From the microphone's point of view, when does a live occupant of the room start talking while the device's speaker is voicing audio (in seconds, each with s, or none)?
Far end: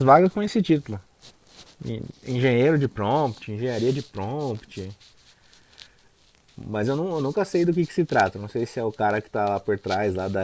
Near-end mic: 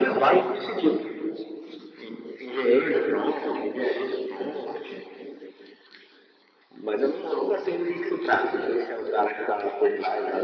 none